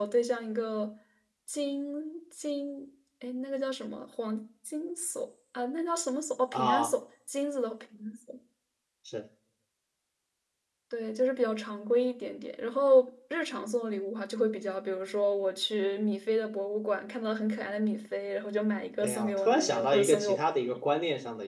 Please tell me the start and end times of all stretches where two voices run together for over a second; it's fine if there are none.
19.0-20.4

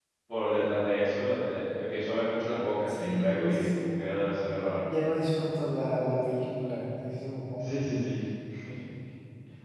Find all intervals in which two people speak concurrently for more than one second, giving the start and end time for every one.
2.9-4.2

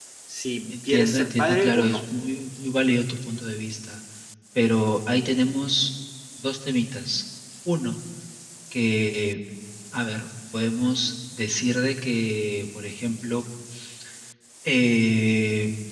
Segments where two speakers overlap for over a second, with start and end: 0.7-2.0

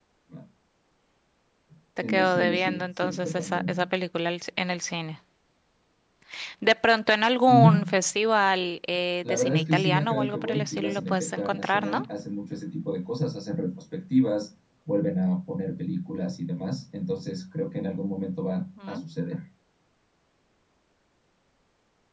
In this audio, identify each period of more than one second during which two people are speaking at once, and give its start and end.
2.0-3.8, 9.2-12.0

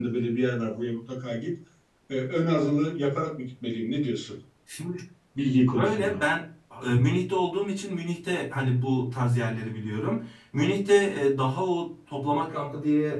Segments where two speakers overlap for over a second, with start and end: none

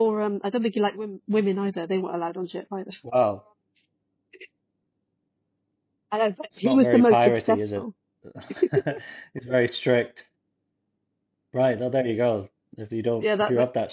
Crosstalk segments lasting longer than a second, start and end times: 6.6-7.8

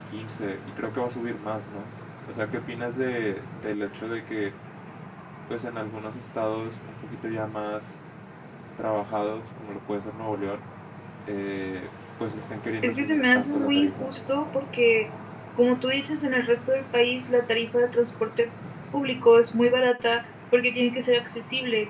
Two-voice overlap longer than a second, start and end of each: 12.8-14.1

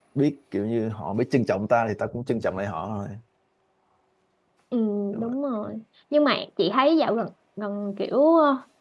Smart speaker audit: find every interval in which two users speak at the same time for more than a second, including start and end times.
none

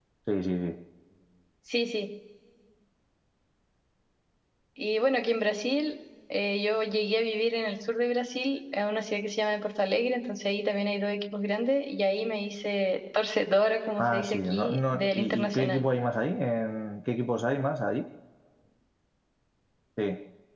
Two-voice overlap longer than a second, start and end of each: 14.0-15.8

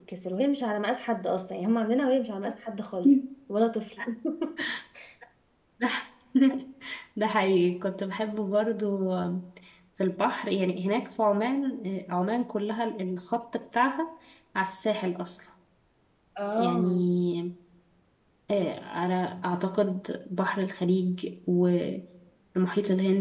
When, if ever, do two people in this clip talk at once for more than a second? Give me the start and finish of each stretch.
none

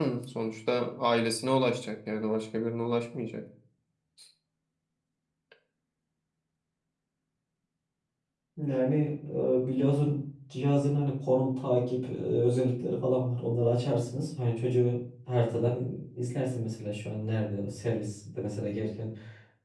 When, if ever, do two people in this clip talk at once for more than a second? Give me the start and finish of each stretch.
none

